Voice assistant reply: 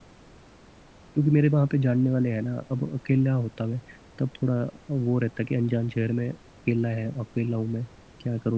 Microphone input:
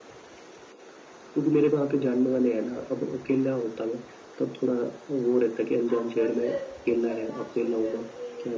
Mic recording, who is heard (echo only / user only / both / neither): both